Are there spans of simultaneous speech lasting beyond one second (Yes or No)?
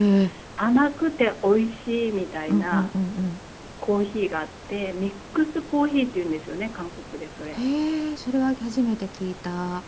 No